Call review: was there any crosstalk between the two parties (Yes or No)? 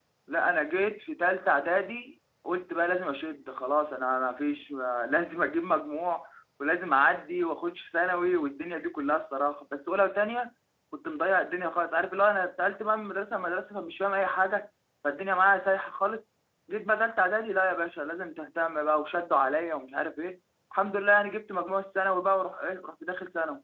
No